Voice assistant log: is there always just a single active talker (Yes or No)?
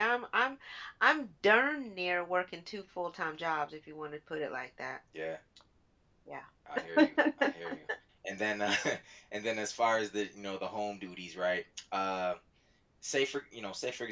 Yes